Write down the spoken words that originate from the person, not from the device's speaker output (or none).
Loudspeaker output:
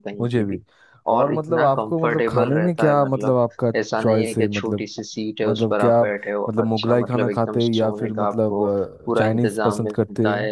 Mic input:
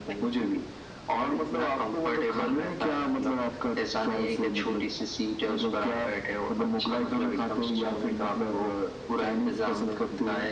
none